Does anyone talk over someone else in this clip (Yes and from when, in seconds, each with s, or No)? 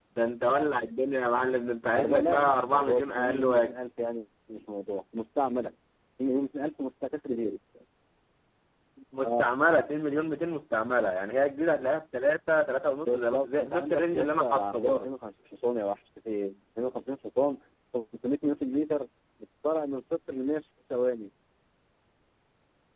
Yes, from 1.9 s